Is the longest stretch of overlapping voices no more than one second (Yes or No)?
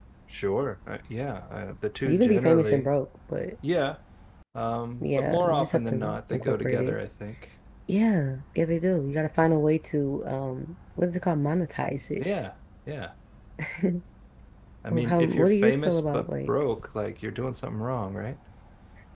No